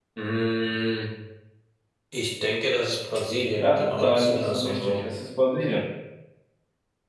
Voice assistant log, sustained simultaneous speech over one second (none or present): present